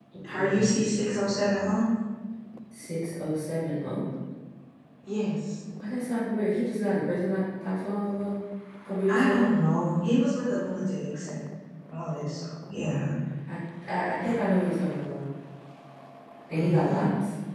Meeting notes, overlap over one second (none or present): none